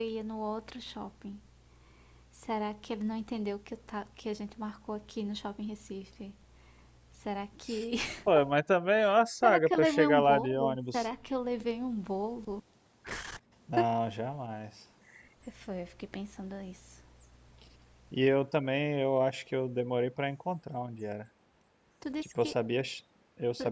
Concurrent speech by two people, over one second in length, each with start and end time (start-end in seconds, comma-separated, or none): 9.4-11.1